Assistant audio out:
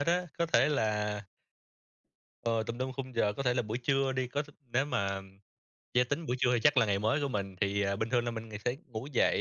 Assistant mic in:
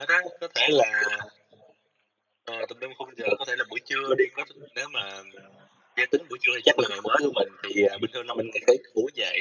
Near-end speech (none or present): none